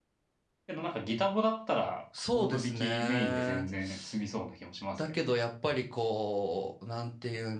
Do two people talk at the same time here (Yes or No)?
Yes